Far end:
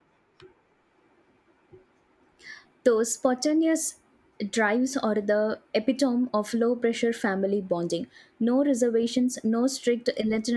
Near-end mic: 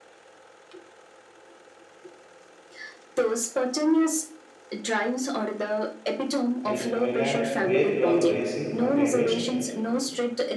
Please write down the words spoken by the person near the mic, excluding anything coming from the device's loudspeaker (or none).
i- island where you are racing against